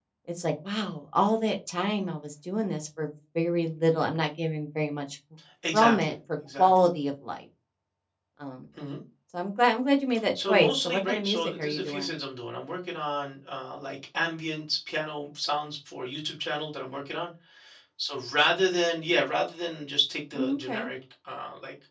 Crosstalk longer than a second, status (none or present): present